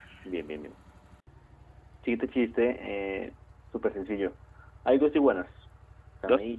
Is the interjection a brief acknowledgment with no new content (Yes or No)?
Yes